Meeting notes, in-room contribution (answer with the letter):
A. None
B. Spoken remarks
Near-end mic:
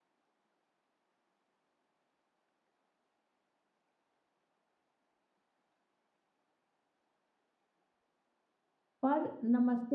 B